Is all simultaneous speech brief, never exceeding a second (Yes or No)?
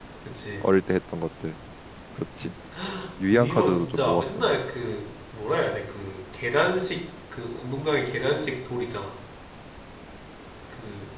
No